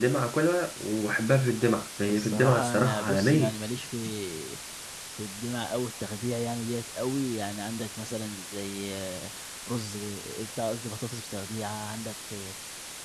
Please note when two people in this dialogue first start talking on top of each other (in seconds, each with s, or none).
2.1 s